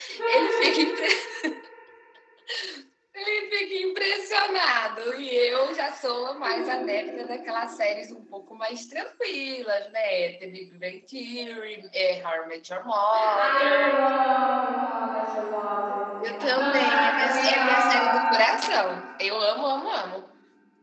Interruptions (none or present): present